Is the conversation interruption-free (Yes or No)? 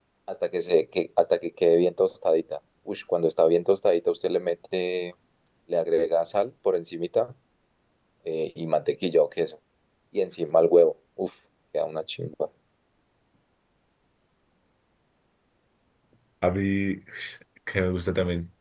Yes